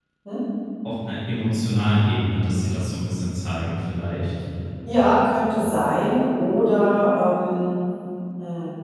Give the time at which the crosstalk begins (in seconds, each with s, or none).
none